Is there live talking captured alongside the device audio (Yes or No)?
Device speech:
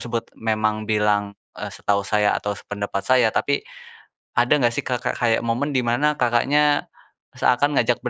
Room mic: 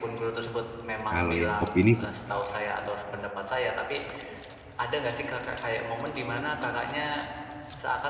Yes